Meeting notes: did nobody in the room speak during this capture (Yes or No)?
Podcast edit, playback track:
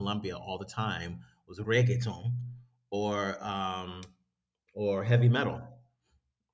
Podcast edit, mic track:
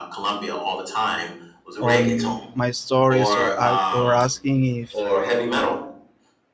No